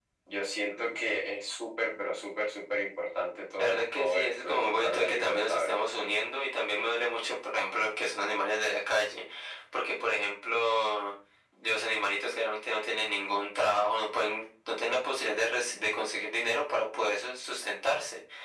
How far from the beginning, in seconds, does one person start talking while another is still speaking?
3.6 s

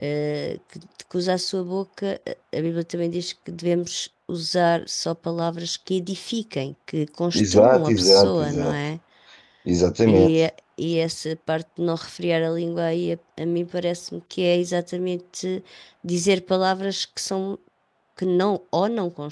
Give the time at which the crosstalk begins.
7.3 s

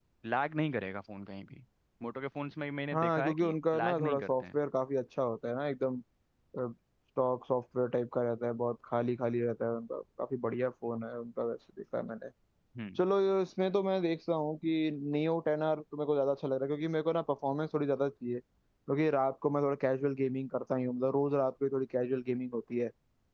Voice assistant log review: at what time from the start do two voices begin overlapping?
2.9 s

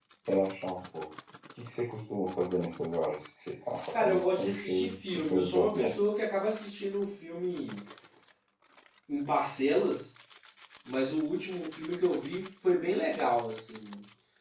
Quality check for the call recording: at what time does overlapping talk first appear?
3.9 s

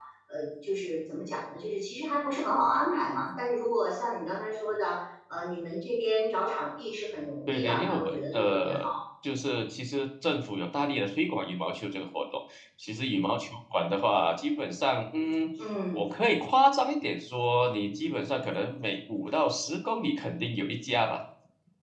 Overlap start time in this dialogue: 7.5 s

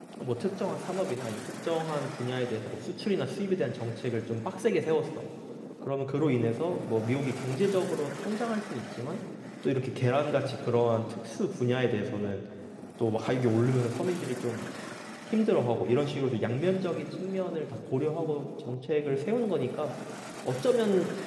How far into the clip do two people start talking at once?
none

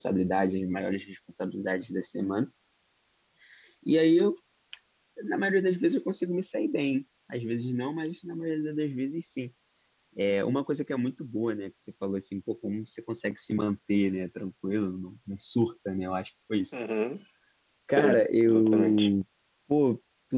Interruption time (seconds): 17.9 s

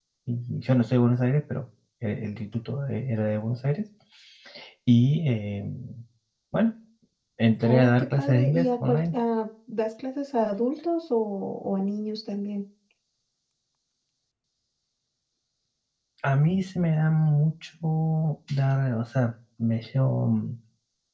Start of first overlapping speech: 7.6 s

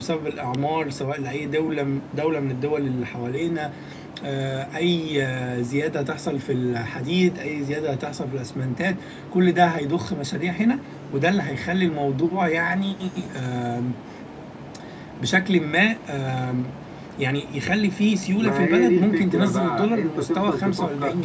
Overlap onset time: 18.4 s

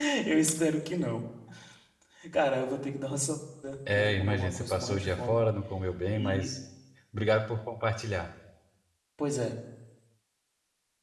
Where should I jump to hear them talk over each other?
3.9 s

